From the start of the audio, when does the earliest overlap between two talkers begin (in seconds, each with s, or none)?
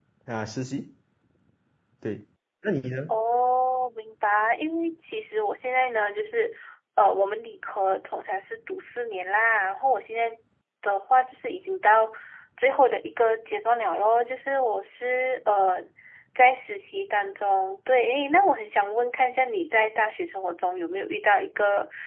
none